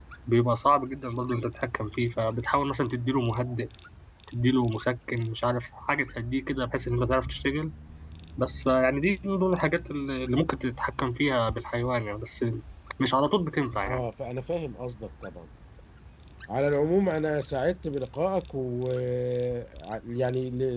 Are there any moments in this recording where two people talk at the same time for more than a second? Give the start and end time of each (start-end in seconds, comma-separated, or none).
none